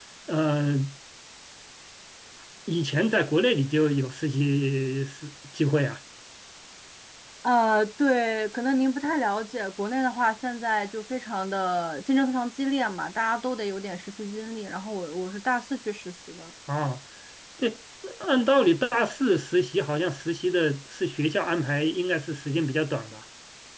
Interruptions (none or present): none